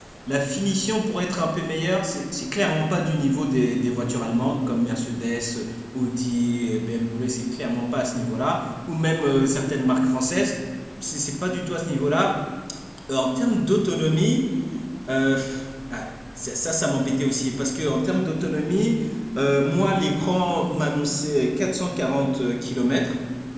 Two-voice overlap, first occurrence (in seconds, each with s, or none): none